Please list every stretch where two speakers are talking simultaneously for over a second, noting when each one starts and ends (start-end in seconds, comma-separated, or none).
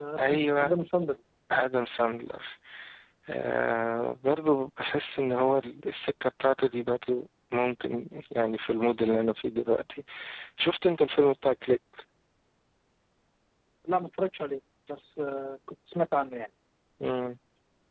none